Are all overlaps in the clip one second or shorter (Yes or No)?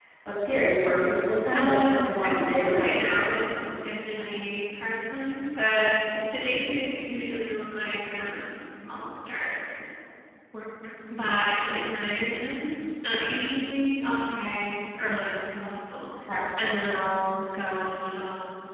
No